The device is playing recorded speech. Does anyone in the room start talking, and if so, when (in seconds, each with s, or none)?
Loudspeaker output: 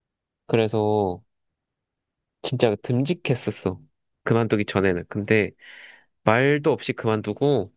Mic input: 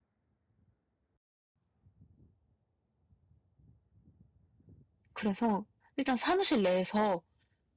5.1 s